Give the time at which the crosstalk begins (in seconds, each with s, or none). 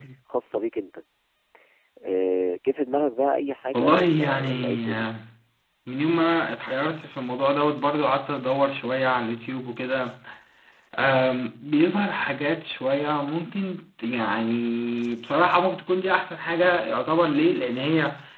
3.7 s